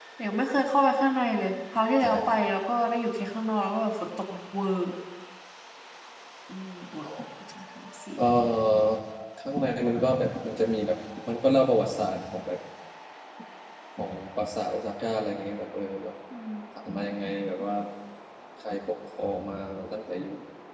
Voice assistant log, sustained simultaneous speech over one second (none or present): none